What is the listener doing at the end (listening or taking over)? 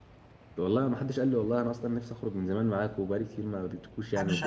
taking over